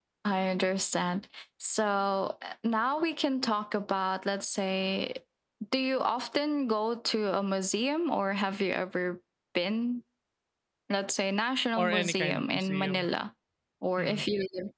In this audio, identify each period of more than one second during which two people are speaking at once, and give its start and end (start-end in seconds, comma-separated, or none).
11.8-13.1